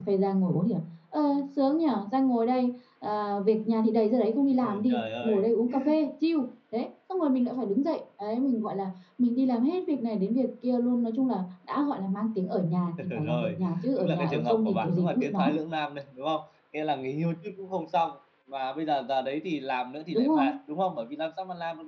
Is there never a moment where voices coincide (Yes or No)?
No